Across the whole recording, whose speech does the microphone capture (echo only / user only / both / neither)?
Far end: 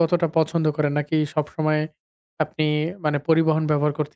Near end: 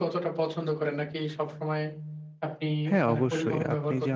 both